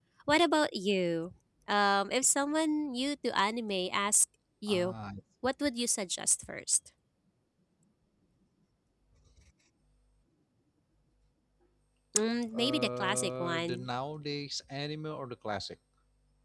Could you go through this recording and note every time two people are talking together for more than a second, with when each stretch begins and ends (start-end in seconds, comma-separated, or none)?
12.5-13.8